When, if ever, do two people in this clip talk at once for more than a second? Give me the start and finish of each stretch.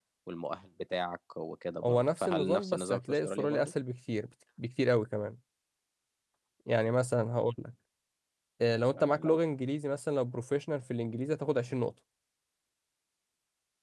1.8-3.7

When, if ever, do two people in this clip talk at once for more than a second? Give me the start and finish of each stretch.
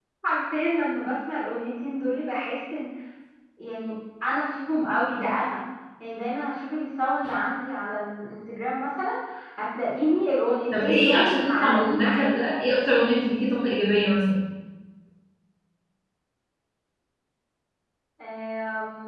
10.8-12.5

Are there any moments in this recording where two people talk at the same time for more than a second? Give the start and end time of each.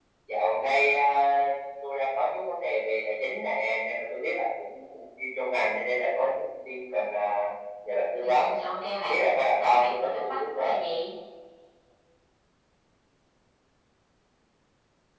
9.1-10.8

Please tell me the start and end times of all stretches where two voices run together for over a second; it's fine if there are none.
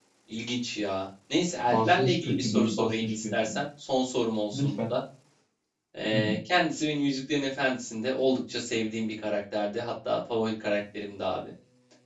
1.6-3.6

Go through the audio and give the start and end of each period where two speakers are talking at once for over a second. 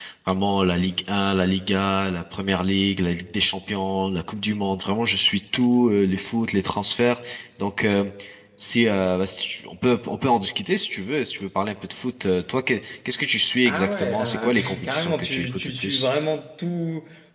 13.7-16.0

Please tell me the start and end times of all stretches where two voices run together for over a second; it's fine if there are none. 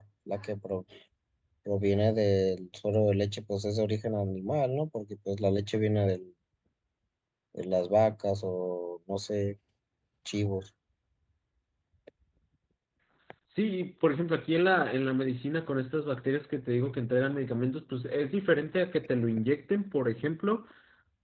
none

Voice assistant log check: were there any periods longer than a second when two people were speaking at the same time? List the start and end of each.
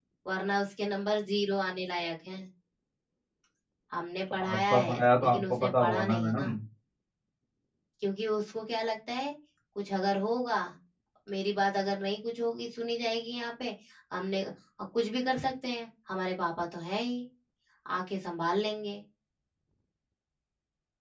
4.4-6.5

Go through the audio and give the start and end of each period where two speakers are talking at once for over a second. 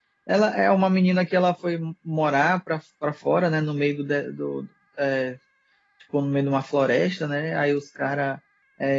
none

